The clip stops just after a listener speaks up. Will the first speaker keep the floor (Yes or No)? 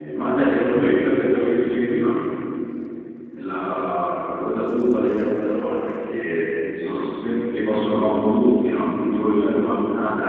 Yes